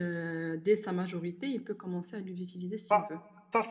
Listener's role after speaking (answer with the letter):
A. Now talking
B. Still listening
A